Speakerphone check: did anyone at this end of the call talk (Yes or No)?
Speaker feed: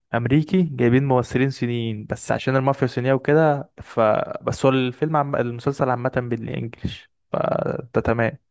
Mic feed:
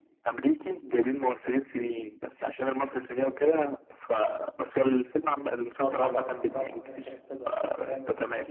Yes